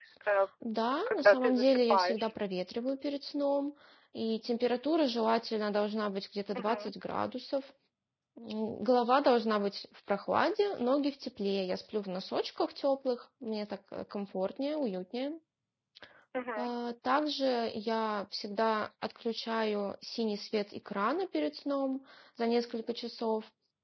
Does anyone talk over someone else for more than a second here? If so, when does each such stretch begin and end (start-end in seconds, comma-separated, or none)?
1.1-2.3